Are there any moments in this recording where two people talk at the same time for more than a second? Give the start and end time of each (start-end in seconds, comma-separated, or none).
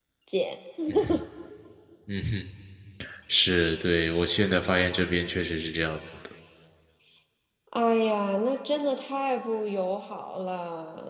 none